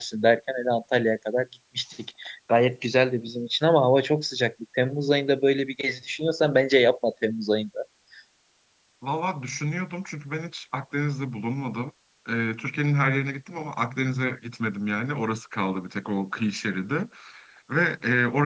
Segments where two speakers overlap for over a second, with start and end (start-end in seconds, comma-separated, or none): none